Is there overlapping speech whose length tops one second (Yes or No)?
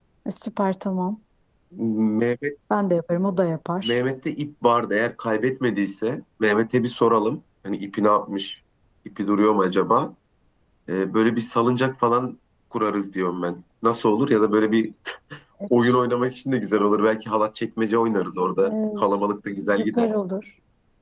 No